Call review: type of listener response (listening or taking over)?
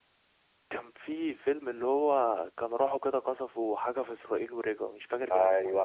taking over